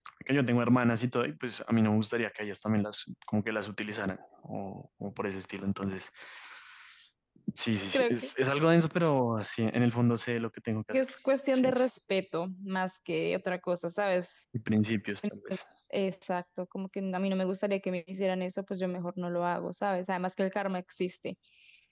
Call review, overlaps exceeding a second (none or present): none